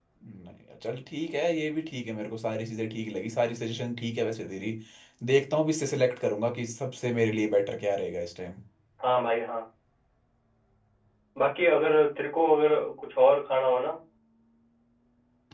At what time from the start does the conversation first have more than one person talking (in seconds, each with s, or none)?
none